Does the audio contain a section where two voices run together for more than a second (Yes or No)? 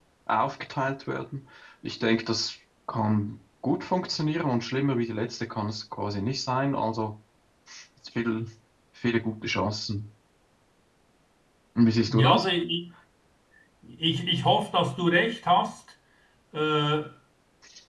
No